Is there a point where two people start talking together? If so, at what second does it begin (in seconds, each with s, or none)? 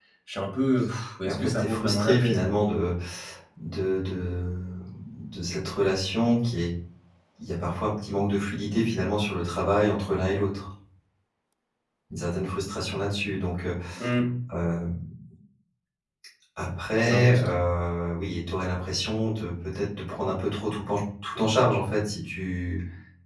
1.2 s